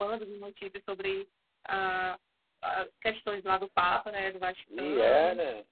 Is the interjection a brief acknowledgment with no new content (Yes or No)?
No